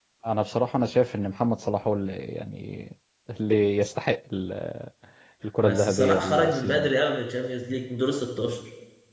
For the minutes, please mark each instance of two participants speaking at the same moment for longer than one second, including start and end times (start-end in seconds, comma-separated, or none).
5.6-6.9